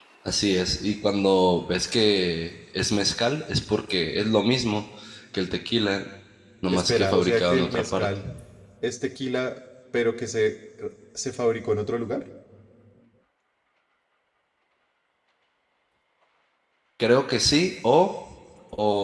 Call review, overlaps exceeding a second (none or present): present